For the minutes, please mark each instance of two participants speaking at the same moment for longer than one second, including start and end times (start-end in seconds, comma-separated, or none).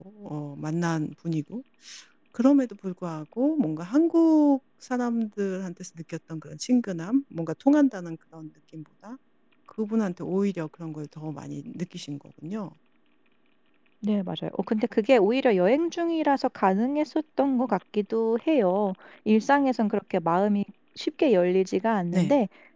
none